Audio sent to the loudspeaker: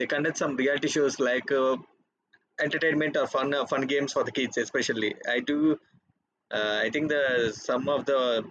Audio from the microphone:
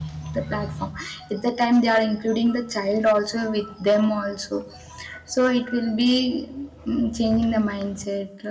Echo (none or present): none